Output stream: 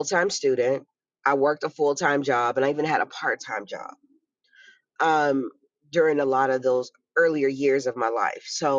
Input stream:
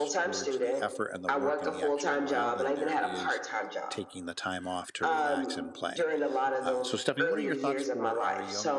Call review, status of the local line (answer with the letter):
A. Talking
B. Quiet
A